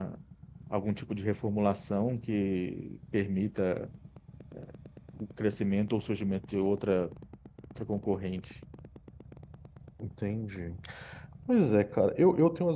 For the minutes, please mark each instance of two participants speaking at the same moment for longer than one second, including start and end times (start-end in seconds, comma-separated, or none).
none